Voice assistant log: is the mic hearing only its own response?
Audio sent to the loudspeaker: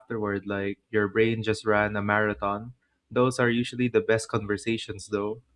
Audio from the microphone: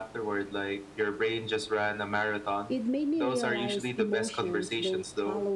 No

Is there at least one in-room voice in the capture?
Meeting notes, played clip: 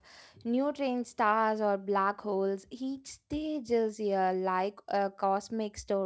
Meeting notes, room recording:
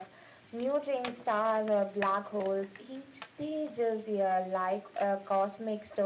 No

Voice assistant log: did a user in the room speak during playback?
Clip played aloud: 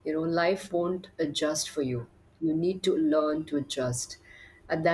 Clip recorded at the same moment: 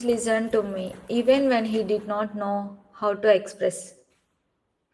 Yes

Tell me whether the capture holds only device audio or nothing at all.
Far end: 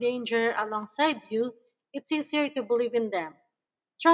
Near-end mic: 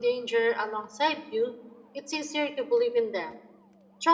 Yes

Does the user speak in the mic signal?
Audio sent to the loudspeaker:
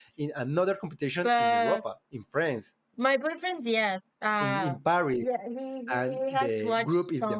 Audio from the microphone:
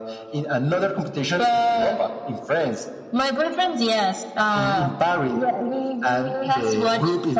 No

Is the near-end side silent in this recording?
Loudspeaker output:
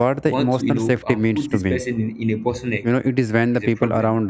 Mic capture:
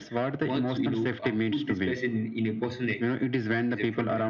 Yes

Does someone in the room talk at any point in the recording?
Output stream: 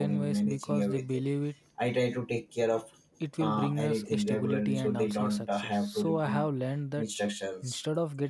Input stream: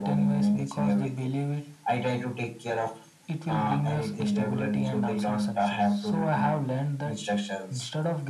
No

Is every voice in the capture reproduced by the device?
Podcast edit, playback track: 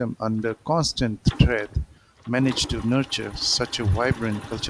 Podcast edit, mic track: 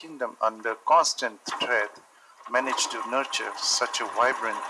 Yes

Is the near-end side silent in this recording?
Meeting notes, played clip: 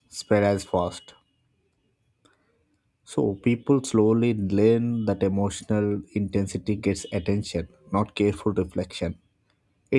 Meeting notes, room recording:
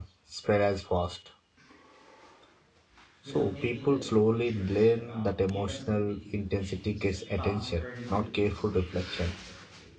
No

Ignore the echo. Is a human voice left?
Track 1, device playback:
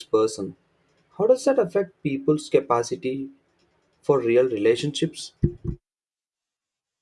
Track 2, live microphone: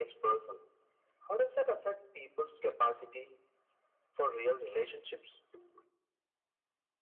No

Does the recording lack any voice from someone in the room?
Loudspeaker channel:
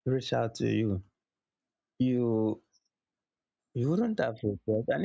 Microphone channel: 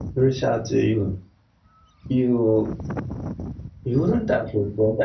Yes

